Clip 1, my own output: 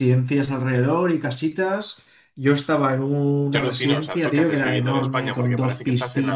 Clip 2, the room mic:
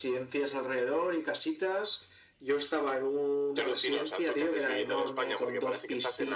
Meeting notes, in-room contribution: none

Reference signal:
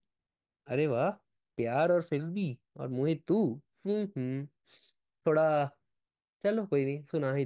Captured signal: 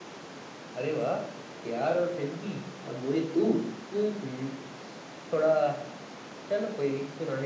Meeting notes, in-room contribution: none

